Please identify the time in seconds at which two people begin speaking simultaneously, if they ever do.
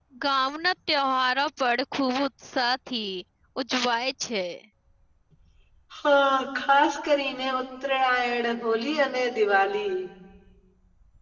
none

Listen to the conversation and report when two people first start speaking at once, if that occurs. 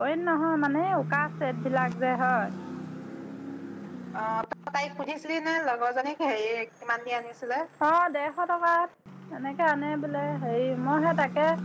none

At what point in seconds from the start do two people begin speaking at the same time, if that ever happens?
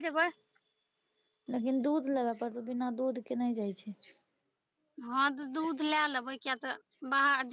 none

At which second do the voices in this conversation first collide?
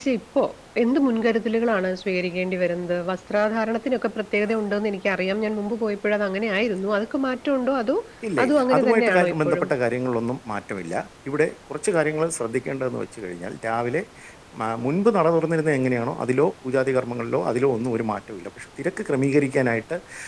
8.4 s

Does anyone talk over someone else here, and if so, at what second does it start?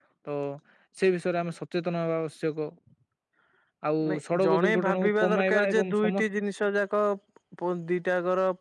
4.1 s

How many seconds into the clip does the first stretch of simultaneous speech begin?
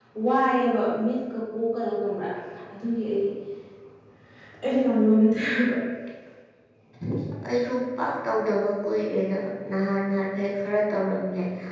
none

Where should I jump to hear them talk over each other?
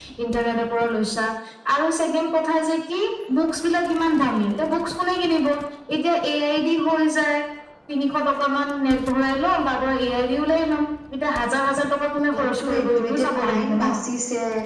12.3 s

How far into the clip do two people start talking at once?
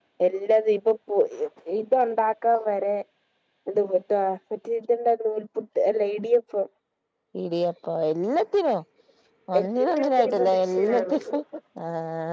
9.6 s

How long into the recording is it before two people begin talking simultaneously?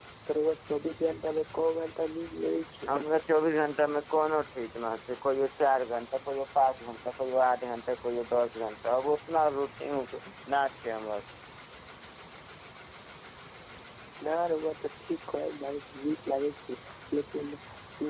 none

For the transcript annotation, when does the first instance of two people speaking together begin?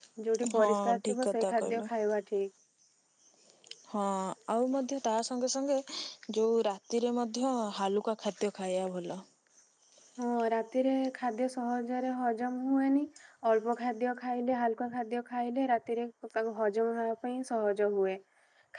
0.6 s

